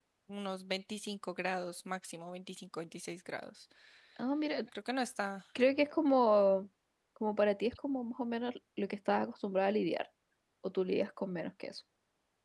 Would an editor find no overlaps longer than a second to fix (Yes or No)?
Yes